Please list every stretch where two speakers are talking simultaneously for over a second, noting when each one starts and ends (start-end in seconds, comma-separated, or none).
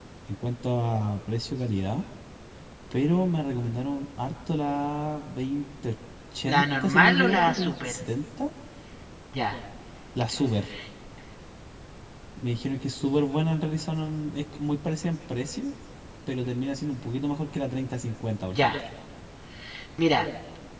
6.5-8.0